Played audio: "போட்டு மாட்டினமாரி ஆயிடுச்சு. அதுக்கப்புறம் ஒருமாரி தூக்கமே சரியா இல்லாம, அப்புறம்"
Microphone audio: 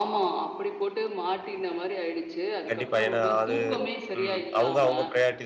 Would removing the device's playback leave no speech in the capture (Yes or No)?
No